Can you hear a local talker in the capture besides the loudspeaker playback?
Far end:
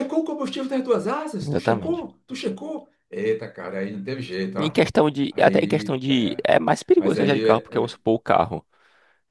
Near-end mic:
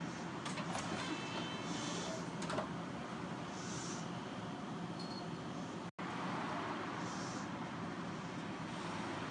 No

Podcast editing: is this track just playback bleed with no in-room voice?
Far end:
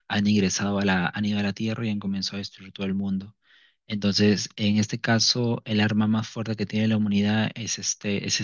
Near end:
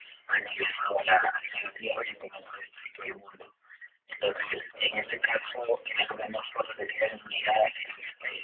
No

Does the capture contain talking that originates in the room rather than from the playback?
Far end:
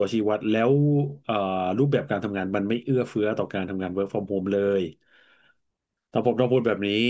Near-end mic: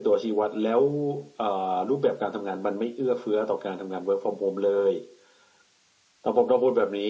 No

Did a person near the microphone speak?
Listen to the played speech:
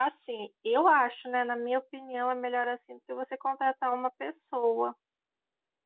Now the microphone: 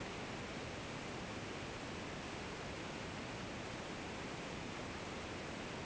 No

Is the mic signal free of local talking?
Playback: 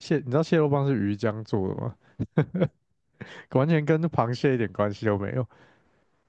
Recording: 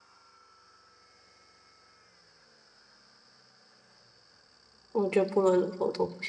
No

